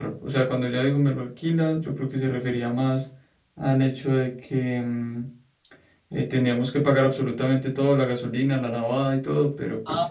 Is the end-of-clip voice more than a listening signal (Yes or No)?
Yes